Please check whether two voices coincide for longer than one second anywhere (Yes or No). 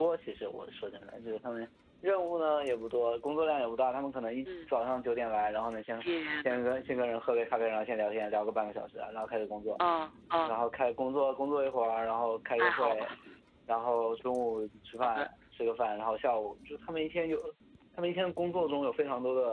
No